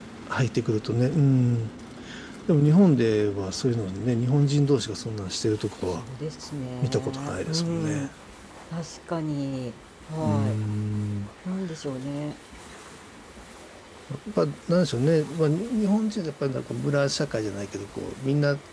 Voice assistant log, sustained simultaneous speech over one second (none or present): present